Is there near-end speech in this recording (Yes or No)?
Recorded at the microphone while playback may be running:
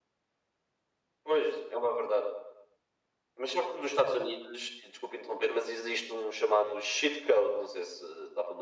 No